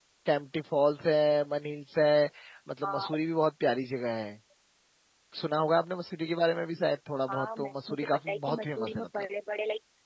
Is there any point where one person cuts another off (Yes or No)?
Yes